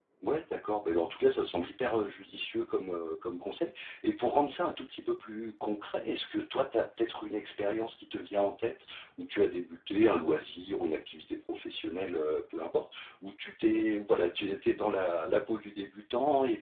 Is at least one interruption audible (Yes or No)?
No